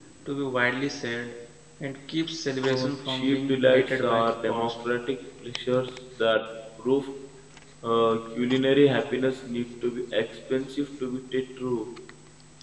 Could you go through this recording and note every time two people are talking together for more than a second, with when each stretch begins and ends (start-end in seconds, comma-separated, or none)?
2.7-4.7